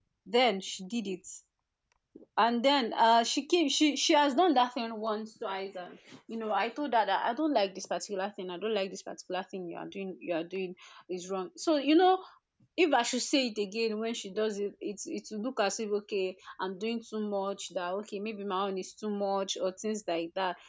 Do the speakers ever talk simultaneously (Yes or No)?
No